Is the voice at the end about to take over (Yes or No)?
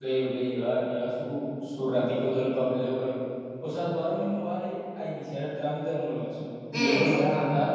No